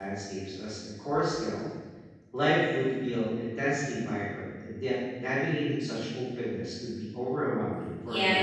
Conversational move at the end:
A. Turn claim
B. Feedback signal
A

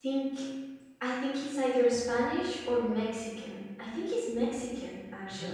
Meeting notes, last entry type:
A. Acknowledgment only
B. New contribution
B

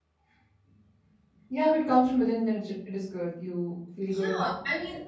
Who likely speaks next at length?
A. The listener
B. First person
A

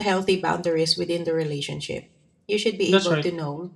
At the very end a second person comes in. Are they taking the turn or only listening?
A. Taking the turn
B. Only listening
B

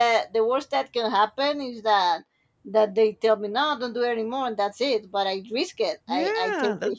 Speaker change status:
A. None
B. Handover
B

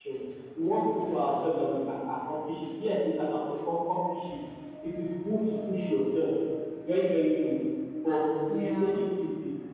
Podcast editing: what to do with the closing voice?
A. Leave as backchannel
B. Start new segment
A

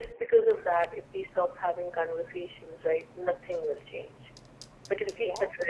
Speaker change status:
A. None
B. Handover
A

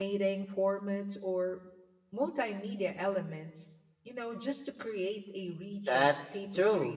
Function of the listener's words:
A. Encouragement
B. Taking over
B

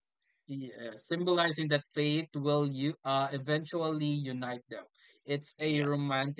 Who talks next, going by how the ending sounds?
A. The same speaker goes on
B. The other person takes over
A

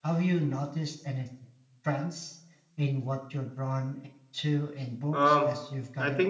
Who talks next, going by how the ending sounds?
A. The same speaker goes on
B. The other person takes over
B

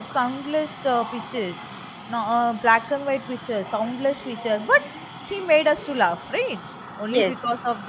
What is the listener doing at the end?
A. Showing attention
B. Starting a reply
A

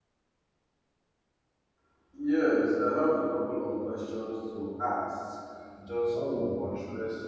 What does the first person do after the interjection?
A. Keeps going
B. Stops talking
A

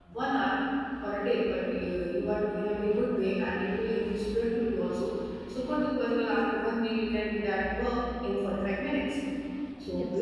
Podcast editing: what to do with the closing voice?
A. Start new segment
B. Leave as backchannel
B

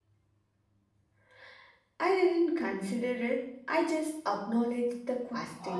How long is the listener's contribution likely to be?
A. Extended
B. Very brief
A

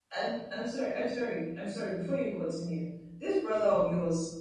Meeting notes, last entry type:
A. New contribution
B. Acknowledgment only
B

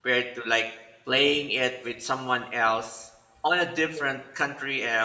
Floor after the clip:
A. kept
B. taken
A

